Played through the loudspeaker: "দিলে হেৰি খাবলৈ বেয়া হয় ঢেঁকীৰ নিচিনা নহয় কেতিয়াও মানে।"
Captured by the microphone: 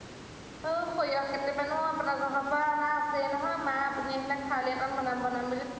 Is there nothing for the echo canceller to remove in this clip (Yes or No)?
Yes